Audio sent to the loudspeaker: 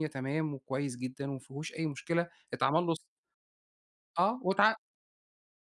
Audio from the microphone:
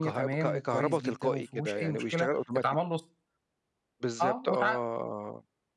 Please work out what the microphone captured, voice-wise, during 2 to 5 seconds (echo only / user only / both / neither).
both